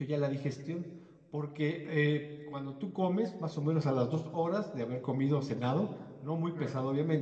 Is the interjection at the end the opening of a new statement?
No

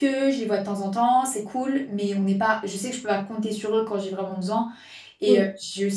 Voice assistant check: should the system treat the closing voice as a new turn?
No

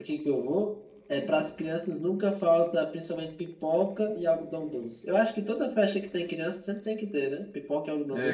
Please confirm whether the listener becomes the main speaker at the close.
Yes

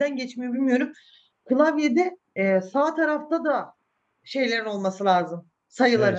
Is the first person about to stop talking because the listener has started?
Yes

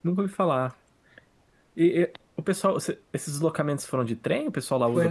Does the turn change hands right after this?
Yes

